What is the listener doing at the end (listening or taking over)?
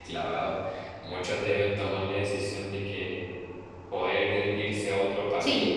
listening